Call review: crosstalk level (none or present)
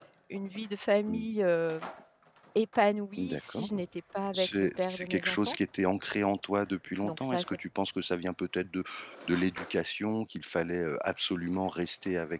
present